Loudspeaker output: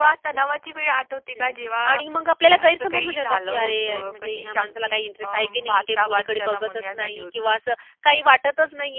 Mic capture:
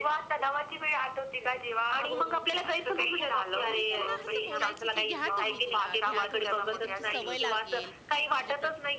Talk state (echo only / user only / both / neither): both